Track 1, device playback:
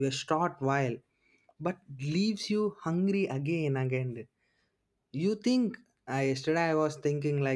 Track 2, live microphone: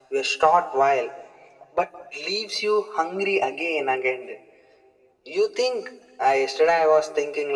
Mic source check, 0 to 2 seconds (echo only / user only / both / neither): echo only